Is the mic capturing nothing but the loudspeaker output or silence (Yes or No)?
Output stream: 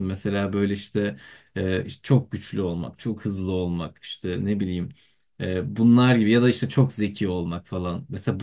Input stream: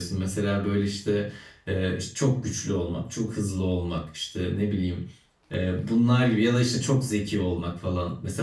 Yes